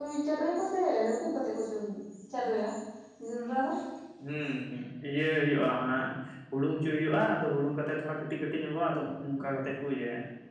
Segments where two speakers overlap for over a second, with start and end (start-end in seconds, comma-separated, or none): none